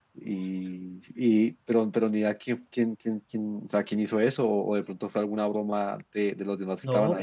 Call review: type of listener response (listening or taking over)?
taking over